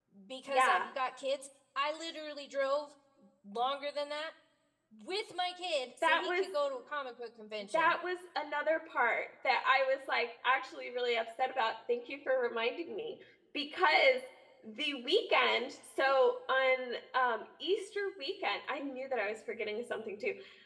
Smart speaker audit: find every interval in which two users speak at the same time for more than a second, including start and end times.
none

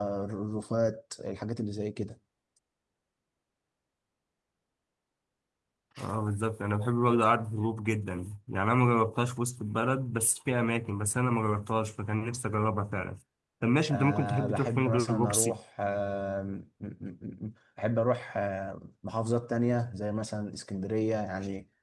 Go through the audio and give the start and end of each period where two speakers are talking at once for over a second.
13.9-15.6

